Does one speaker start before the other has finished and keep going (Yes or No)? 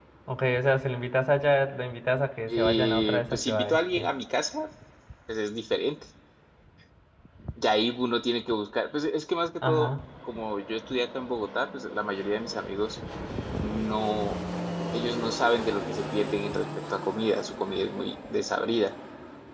Yes